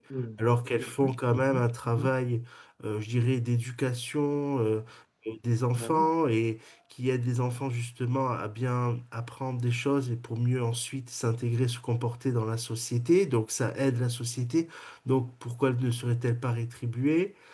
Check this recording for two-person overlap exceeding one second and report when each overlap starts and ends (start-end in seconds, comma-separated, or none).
0.8-2.1